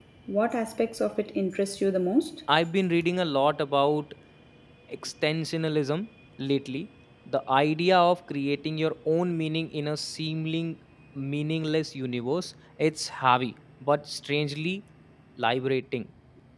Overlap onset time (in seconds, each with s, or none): none